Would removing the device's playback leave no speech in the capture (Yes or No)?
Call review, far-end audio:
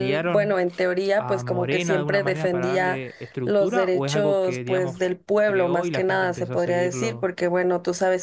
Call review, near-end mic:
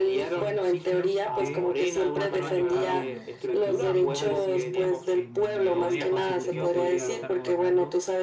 No